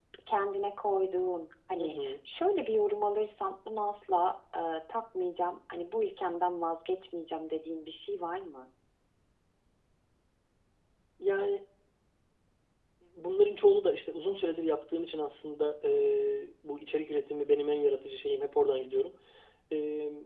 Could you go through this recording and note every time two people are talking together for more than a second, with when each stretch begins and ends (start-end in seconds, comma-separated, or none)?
none